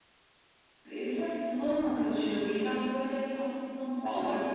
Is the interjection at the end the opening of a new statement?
No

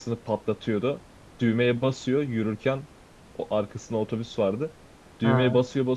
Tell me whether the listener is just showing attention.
Yes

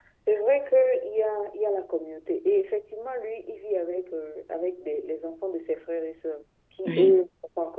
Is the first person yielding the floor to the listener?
No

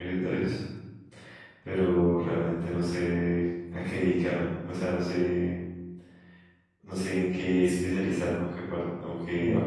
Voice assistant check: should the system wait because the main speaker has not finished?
No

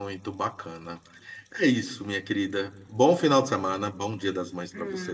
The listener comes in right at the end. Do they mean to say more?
Yes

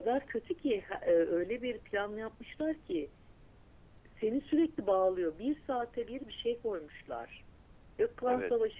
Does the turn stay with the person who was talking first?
Yes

